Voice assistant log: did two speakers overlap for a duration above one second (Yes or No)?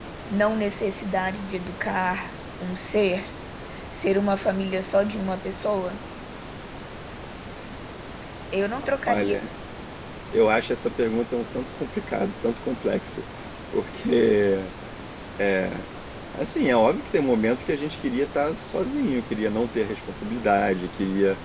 No